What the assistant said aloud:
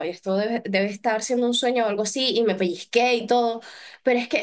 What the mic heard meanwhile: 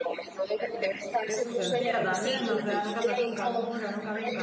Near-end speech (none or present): present